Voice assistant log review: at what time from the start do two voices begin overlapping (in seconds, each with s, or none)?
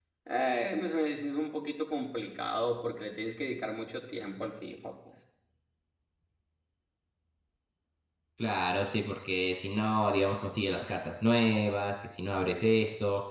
none